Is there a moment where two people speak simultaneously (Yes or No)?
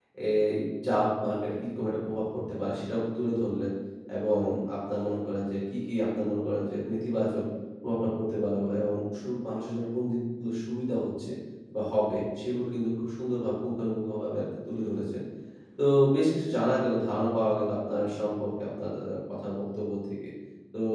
No